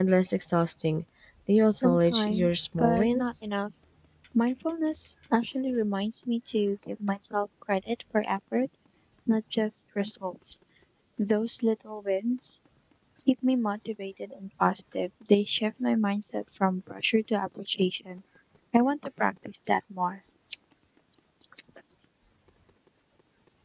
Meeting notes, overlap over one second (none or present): present